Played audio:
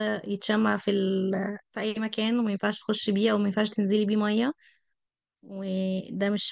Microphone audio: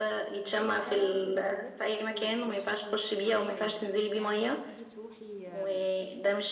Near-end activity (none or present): present